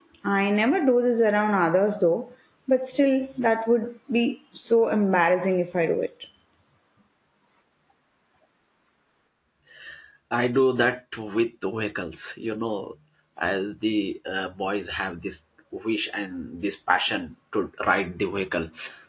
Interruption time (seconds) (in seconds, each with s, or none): none